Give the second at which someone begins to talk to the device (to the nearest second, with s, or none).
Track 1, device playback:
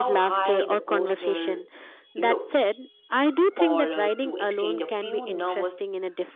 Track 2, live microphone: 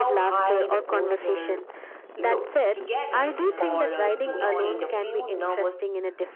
3 s